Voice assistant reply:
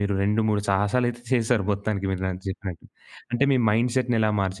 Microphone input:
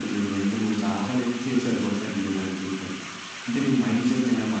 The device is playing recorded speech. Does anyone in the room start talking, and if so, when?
none

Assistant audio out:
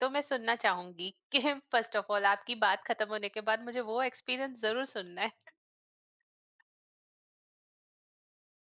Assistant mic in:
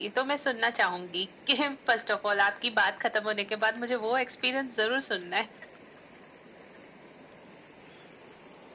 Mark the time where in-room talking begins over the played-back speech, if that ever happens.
none

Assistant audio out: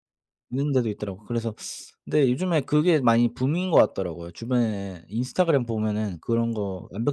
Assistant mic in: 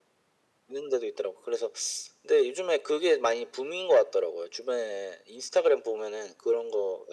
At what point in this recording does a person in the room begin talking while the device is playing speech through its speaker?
none

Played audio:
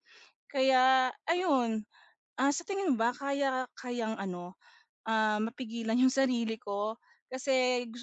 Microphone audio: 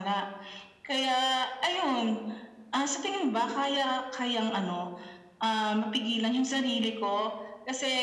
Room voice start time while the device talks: none

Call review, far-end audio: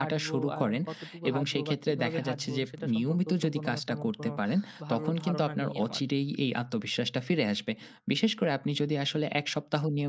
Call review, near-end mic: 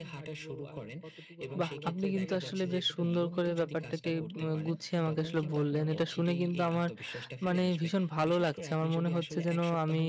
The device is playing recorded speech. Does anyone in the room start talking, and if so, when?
1.6 s

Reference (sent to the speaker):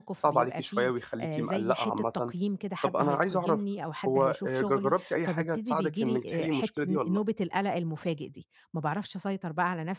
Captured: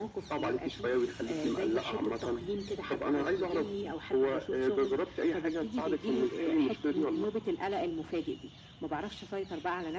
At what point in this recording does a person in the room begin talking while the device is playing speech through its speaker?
none

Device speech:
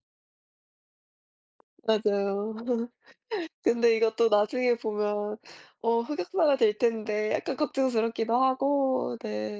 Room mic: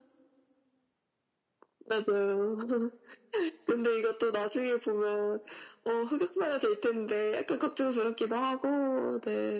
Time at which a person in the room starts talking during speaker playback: none

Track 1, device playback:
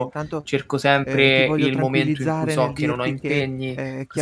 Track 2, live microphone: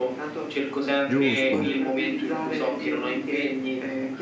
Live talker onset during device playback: 1.1 s

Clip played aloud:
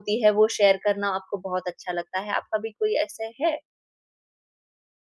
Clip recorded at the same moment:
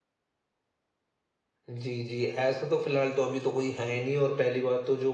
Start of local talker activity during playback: 1.7 s

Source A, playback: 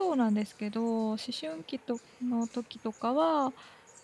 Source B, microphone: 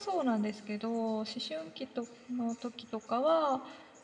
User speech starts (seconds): none

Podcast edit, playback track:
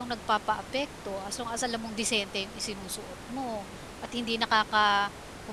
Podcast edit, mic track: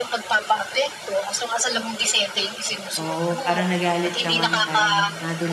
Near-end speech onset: 3.0 s

